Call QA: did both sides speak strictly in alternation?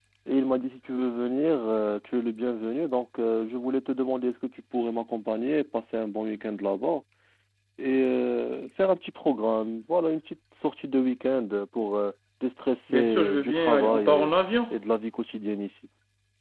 No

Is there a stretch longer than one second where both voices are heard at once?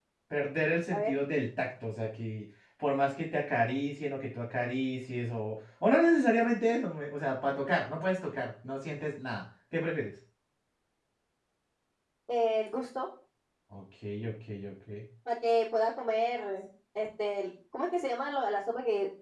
No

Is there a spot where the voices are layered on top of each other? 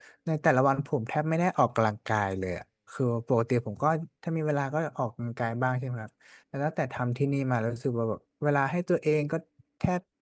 No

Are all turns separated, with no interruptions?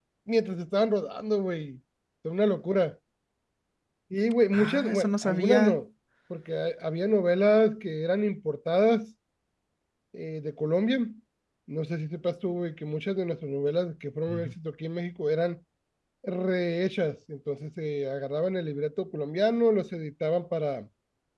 No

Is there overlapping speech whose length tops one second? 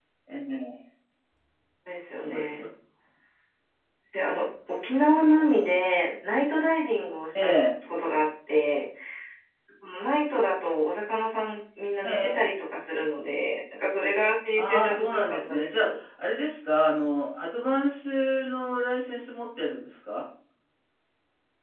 Yes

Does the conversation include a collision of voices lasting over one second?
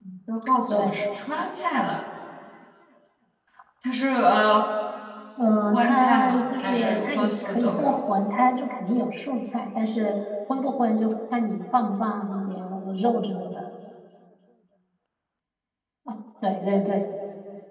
Yes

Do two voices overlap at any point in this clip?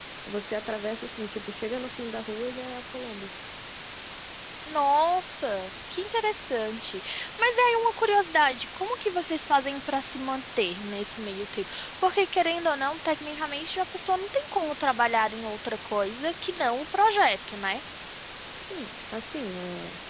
No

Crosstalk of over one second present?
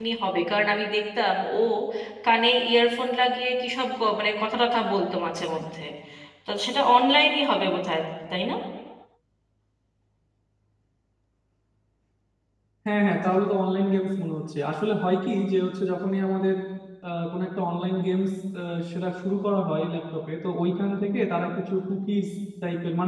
No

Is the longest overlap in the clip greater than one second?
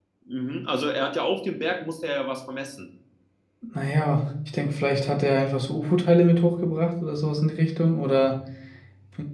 No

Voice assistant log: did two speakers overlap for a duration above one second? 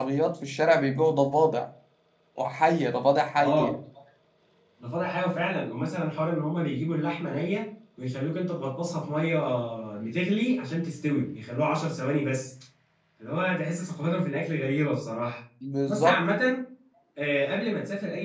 No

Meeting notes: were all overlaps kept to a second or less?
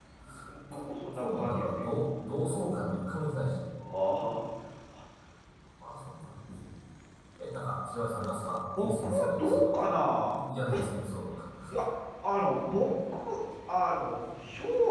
No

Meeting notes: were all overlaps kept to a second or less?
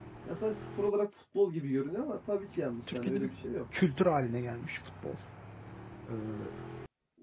Yes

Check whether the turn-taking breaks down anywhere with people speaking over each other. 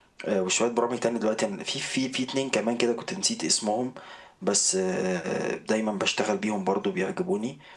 No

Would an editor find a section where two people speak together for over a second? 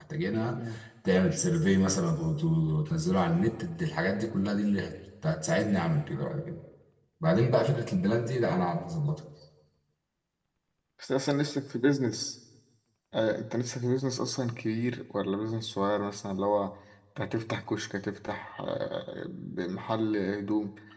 No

